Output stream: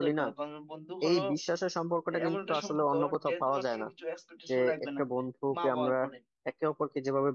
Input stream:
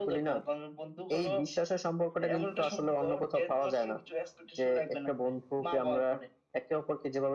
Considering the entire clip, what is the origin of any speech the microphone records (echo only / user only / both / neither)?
echo only